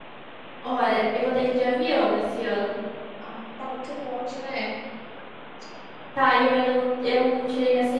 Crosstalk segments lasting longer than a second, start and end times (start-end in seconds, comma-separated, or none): none